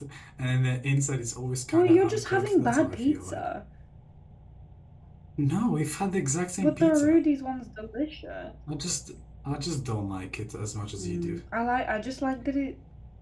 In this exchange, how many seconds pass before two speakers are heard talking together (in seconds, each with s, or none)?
1.7 s